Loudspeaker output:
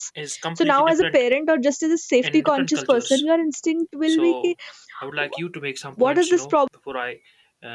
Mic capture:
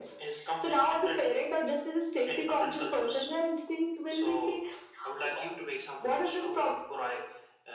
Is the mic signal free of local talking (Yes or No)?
Yes